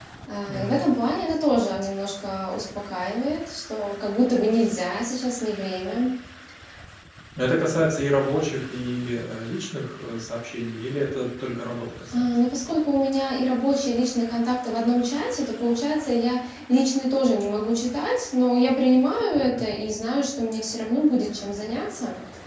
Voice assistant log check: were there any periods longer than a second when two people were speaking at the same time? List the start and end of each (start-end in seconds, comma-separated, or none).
none